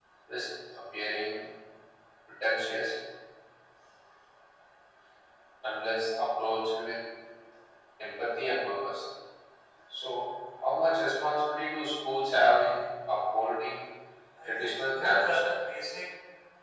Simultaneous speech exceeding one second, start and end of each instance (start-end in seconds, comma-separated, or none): 14.6-15.9